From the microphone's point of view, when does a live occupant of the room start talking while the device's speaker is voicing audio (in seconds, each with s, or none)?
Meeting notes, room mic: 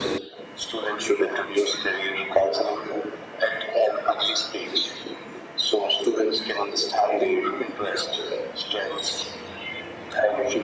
none